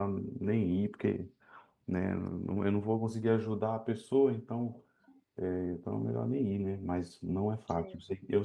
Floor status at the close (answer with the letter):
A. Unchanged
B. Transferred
A